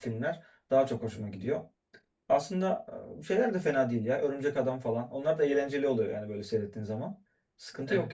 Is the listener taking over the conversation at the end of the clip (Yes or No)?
Yes